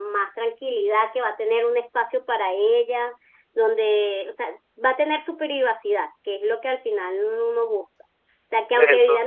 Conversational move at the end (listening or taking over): listening